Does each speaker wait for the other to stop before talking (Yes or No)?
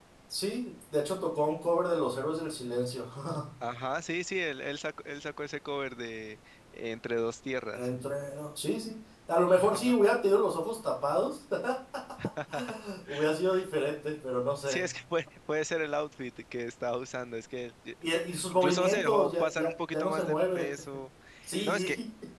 No